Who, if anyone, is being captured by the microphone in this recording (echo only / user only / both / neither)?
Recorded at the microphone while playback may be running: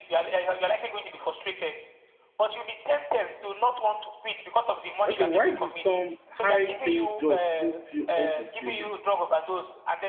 both